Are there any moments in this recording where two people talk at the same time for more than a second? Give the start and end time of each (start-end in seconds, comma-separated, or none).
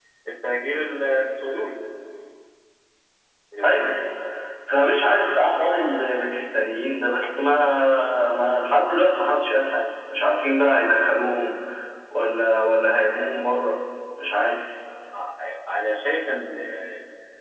none